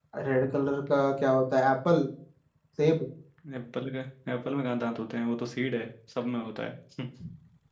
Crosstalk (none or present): none